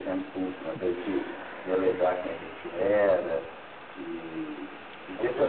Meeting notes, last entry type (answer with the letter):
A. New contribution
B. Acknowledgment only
B